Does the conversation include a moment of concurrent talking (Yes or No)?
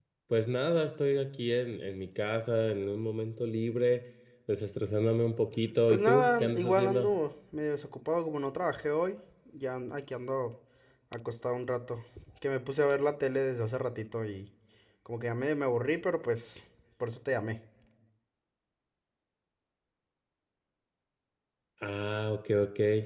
Yes